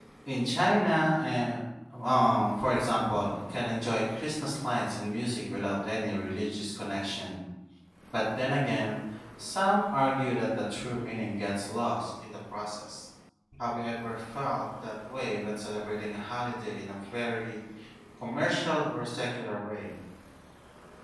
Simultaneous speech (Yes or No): No